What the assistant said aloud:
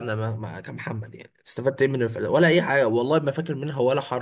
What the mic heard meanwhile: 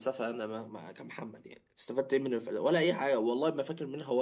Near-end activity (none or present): none